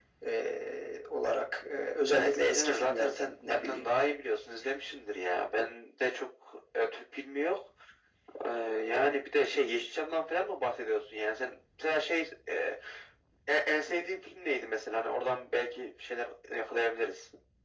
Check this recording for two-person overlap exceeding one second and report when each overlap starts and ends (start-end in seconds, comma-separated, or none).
2.1-3.9